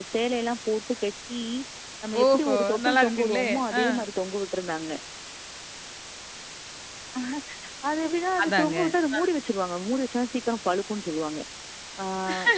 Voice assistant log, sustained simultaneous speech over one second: present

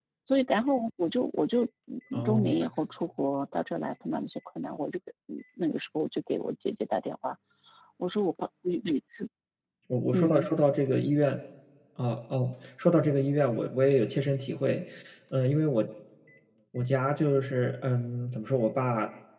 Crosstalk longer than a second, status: none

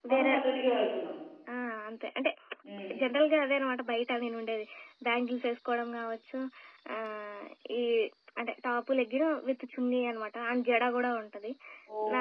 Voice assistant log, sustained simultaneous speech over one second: none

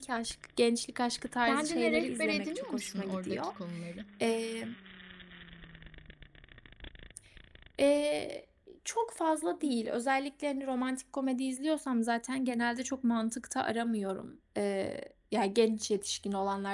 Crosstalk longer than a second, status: present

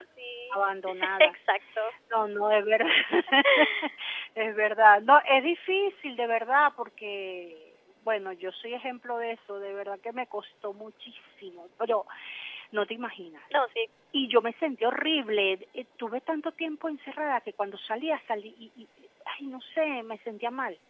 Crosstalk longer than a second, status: none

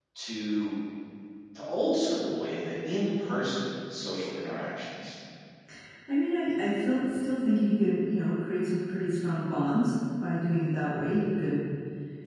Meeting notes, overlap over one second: none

